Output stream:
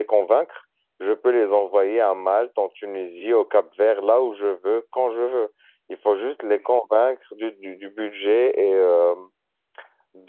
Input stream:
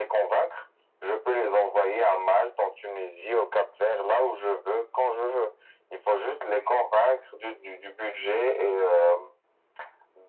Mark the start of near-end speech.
none

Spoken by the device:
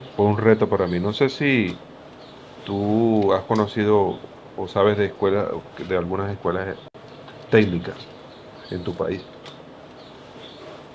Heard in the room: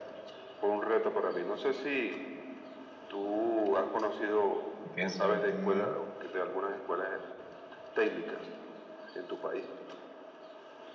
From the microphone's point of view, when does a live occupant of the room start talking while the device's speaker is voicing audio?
5 s

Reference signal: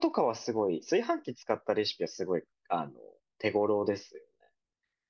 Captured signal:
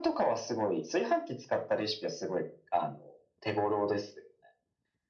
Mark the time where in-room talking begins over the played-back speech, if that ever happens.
none

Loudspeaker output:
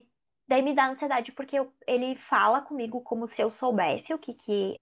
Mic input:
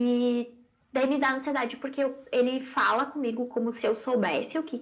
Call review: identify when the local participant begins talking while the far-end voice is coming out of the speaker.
none

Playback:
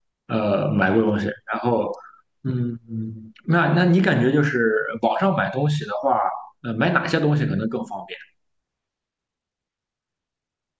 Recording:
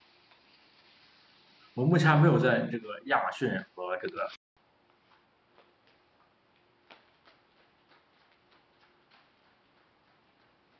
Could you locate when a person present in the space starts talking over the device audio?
2 s

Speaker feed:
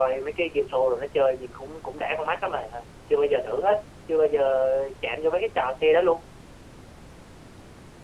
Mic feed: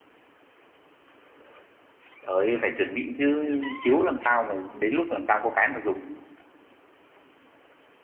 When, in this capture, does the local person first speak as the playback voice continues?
2 s

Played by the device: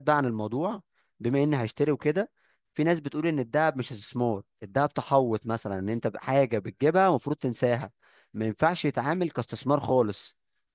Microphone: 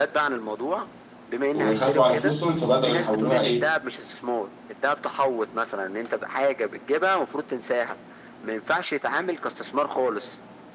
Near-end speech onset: 2 s

